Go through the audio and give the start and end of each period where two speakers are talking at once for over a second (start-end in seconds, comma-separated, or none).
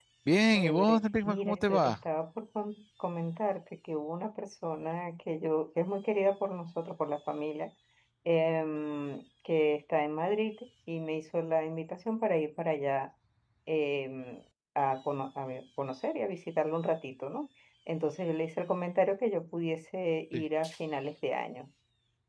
0.5-2.0